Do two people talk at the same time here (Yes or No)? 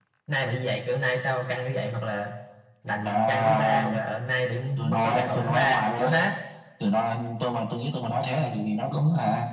Yes